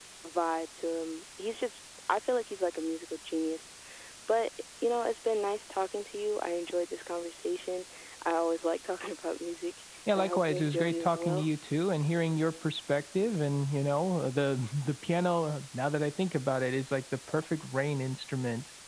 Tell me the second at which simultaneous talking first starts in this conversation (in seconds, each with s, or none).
10.1 s